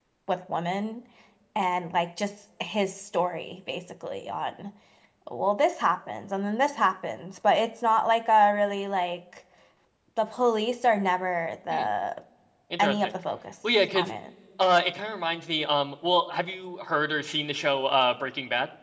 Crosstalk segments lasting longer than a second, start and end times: none

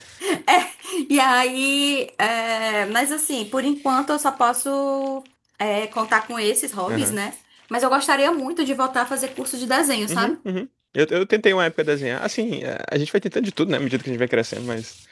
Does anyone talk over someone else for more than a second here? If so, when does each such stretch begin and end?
none

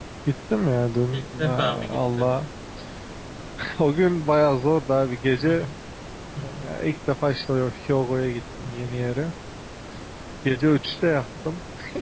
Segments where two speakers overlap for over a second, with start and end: 1.1-2.3

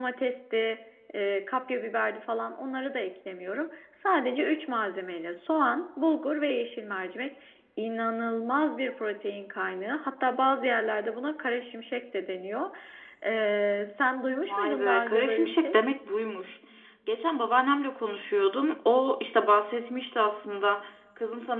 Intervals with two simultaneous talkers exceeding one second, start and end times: 14.5-15.8

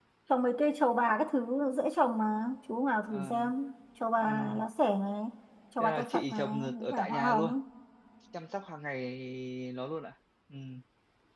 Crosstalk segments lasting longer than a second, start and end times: 5.8-7.5

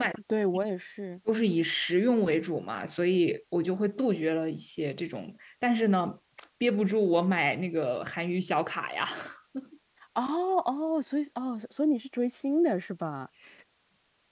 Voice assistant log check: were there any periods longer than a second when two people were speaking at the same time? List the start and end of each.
none

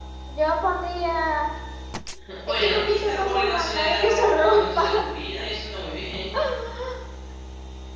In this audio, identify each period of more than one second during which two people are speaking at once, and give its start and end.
2.5-4.8

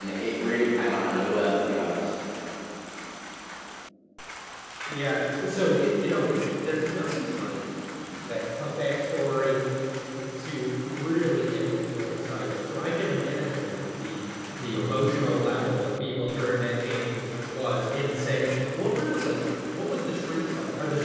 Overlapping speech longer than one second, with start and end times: none

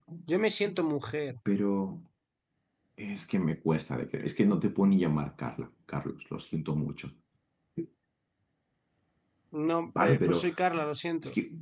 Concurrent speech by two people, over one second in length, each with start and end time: none

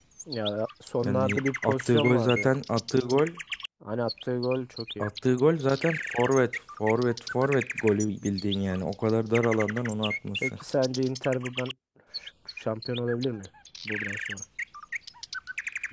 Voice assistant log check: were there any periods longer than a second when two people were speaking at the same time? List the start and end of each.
1.0-2.5

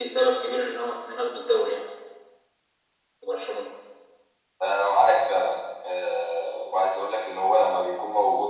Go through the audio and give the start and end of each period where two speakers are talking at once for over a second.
none

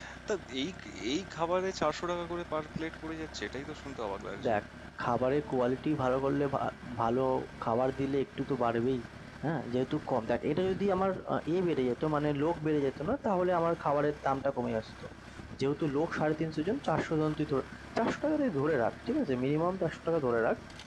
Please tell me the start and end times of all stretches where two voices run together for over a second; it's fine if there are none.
none

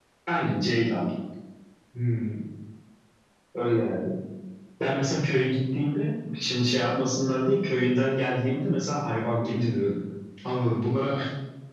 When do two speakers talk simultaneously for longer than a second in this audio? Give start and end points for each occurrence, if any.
none

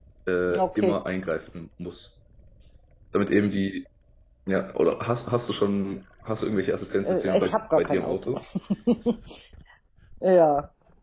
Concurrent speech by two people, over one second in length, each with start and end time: 7.0-8.3

